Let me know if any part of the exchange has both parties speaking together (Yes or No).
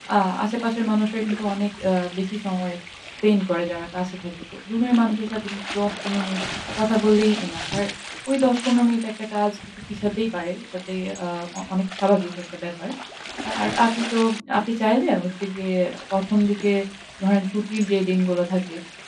No